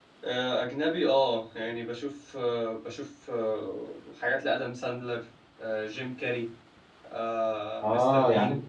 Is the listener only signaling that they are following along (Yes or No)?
No